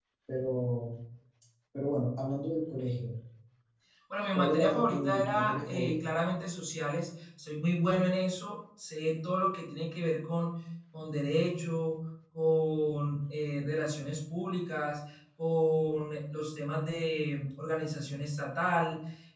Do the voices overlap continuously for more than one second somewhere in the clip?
Yes, from 4.4 s

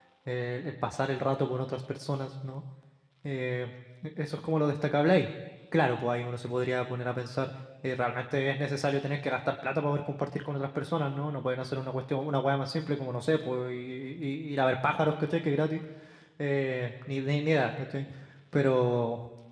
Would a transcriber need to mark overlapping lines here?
No

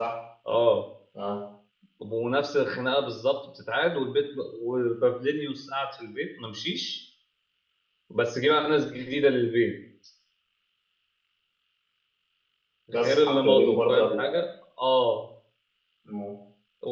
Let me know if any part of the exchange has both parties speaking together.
Yes, from 12.9 s

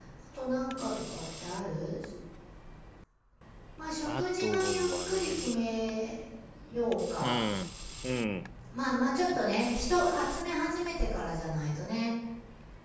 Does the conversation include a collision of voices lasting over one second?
Yes, from 4.0 s

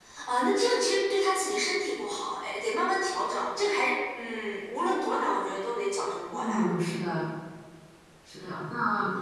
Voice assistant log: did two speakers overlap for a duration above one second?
No

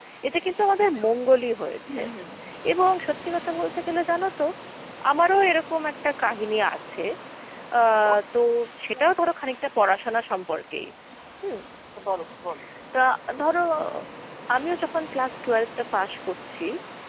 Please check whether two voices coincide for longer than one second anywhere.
No

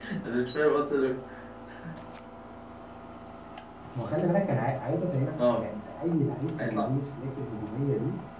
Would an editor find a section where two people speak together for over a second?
No

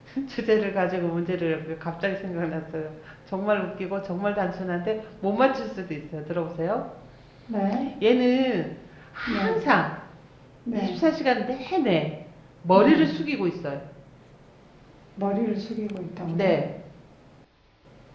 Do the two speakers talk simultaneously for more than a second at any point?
No

